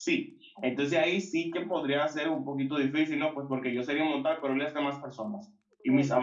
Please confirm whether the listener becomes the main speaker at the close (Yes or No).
No